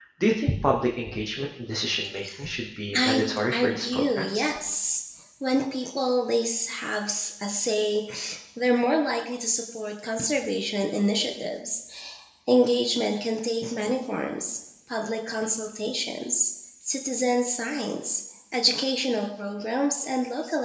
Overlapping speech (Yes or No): Yes